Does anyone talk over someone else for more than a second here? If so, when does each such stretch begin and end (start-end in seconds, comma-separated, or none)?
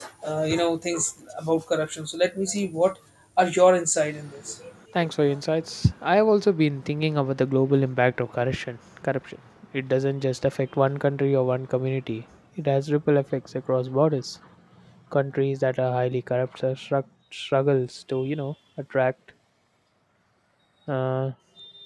none